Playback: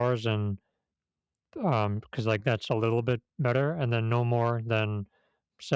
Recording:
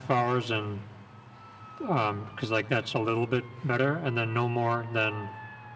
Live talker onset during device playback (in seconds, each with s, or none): none